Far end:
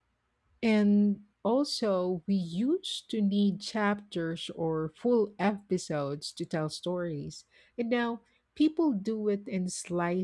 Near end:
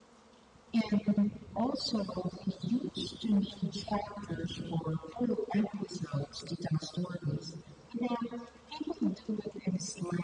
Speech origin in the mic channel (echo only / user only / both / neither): echo only